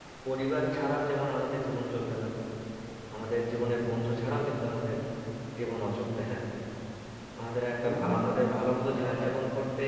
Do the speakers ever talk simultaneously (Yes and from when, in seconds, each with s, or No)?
Yes, from 7.8 s